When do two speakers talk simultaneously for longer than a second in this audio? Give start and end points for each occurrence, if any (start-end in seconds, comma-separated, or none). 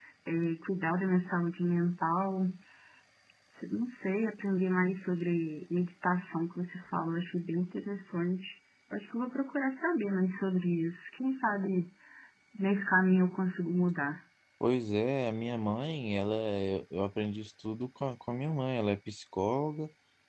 none